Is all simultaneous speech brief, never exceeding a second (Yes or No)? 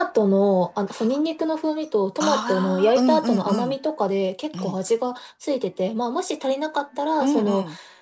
No